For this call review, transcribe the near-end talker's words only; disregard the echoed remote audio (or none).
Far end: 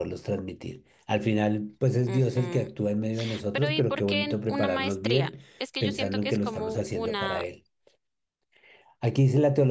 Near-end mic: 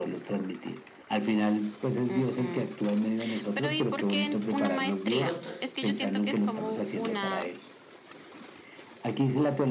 y costos?